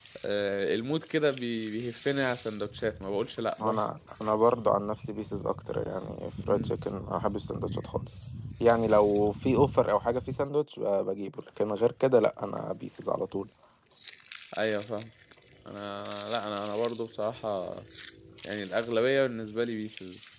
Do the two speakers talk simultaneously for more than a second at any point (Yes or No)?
No